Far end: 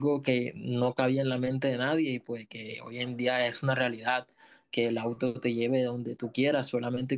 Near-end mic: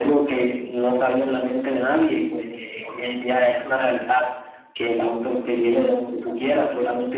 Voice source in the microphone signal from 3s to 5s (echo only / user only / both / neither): echo only